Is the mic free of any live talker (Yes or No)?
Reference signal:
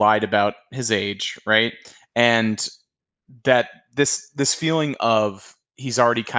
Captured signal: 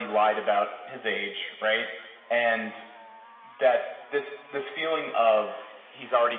Yes